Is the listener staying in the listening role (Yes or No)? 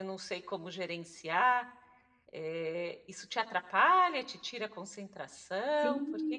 No